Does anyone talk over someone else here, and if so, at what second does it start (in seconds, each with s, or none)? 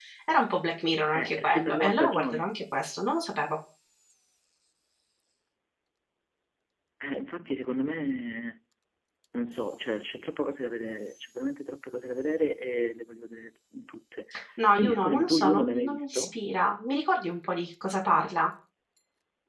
1.1 s